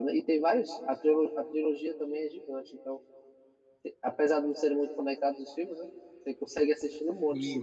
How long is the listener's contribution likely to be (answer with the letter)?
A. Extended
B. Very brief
A